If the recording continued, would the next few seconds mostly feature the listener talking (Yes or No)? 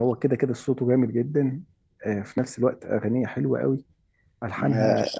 No